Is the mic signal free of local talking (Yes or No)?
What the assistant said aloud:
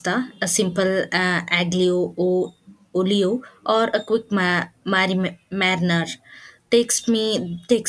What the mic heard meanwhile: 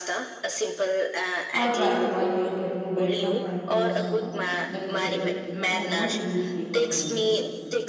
No